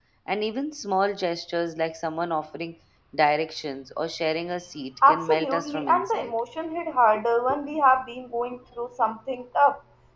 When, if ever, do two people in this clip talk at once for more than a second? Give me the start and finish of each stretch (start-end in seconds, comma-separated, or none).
5.1-6.3